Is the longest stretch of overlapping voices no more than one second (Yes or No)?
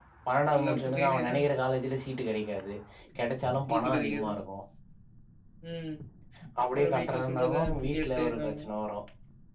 No